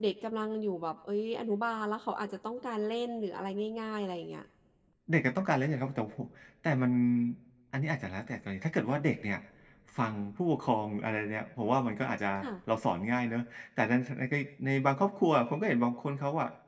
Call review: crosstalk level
none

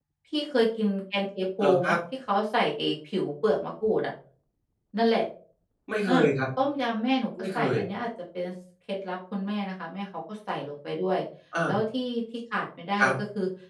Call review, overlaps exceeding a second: none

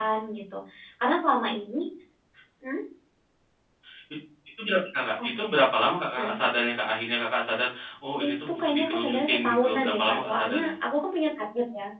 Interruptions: present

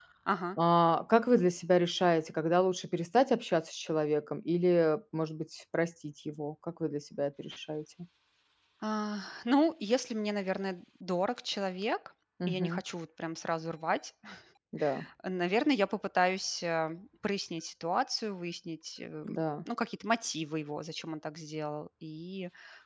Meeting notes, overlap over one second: none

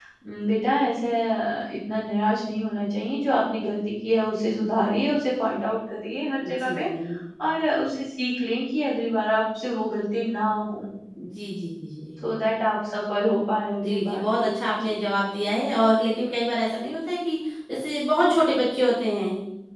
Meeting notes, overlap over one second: present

